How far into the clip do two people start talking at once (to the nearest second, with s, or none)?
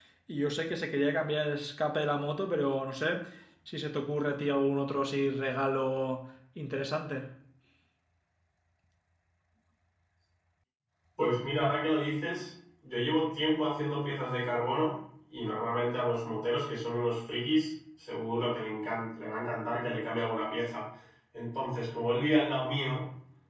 none